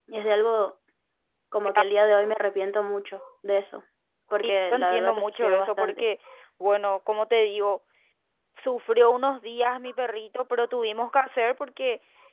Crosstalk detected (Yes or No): Yes